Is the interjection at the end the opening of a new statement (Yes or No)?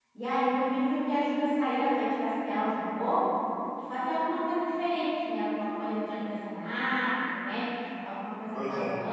No